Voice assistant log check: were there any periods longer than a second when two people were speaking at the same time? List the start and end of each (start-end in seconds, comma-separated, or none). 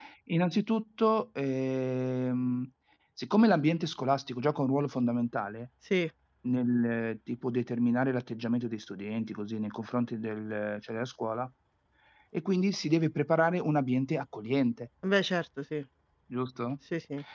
none